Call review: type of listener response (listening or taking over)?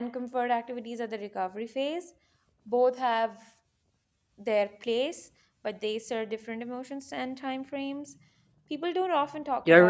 taking over